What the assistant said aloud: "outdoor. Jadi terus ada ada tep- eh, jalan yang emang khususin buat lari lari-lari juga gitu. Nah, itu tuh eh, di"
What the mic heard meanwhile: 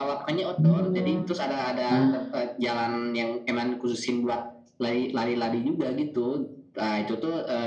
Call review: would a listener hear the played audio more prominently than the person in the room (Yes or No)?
No